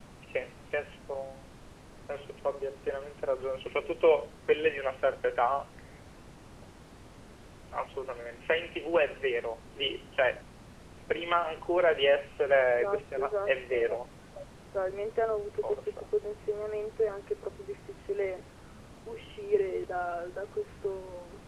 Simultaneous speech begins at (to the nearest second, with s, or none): 13 s